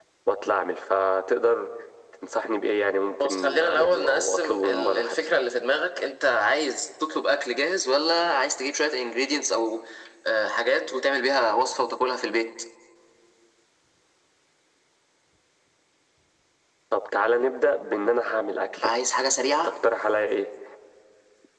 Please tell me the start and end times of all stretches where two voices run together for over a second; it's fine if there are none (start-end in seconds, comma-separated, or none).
3.0-5.2